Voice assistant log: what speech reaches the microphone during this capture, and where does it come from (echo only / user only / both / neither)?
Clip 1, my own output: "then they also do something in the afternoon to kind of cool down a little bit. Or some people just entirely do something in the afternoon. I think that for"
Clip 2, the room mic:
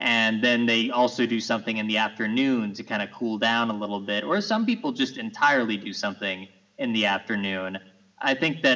echo only